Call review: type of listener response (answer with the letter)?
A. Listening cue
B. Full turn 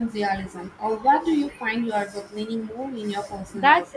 B